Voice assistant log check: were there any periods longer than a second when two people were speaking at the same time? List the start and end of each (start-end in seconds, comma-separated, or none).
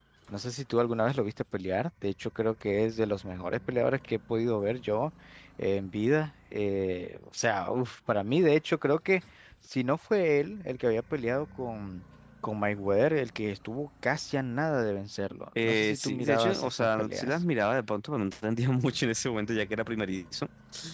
15.6-17.3